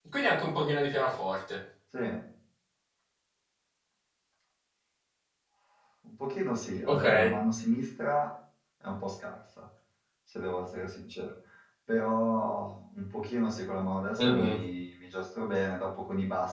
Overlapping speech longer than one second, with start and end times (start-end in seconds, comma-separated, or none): none